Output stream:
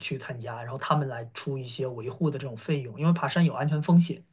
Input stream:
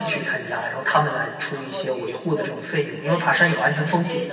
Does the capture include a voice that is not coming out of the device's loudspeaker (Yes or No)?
Yes